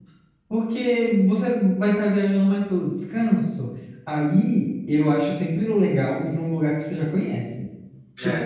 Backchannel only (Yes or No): Yes